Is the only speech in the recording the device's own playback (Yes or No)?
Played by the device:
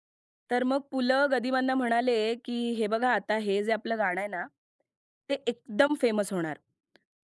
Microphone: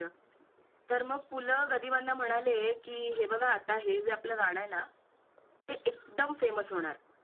Yes